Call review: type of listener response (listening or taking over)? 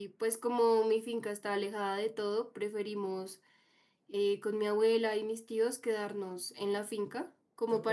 listening